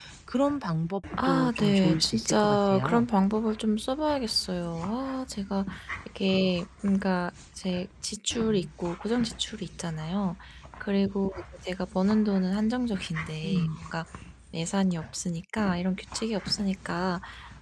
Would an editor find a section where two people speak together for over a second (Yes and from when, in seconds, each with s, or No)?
Yes, from 1.2 s